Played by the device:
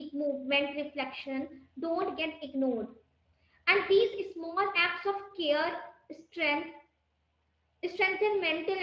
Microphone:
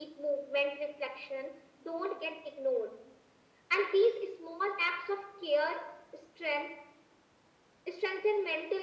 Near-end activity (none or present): none